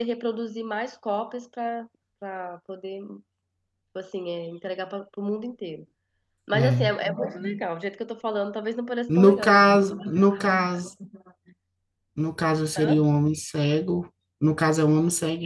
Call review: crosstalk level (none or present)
present